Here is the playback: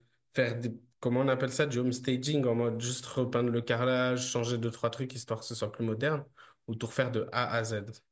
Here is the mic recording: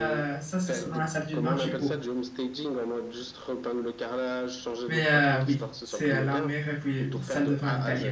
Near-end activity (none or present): present